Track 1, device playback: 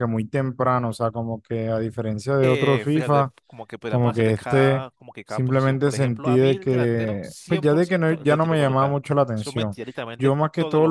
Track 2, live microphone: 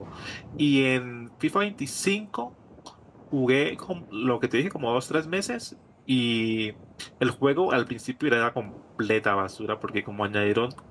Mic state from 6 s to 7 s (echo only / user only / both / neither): user only